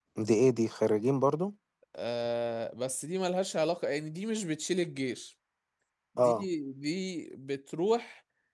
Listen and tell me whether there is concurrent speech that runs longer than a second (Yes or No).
No